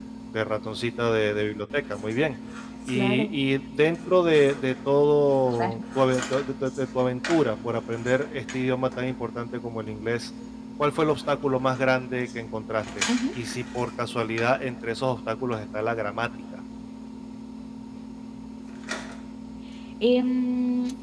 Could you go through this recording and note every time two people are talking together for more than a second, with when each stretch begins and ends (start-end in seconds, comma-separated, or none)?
none